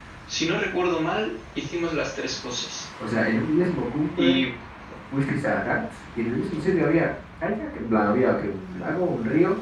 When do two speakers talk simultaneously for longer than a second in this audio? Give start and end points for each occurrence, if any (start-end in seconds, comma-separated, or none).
none